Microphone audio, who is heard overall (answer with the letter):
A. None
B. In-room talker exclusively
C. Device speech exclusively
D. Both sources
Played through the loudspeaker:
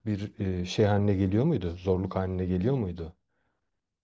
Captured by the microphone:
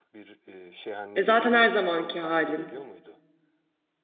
D